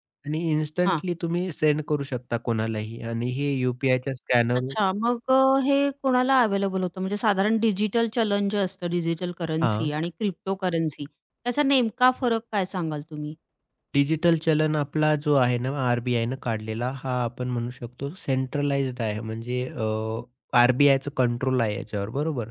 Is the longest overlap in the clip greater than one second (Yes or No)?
No